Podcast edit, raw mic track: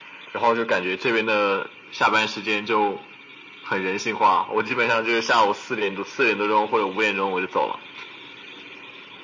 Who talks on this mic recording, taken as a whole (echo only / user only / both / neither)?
echo only